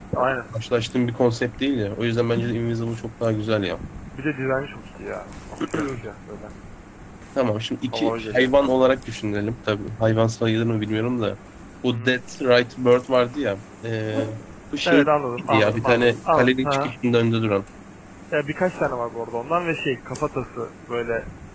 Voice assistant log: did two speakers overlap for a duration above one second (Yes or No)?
Yes